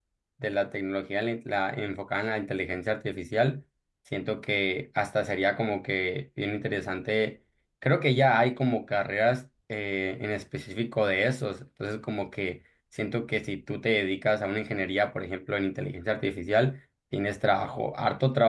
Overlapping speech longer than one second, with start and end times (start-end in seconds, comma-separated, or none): none